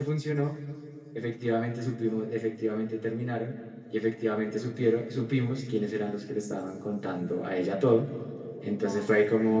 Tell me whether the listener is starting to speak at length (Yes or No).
No